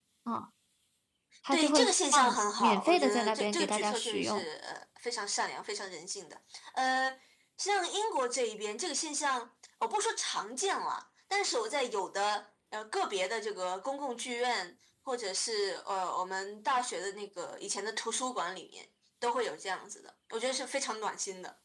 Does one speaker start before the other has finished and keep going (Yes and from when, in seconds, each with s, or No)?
Yes, from 1.5 s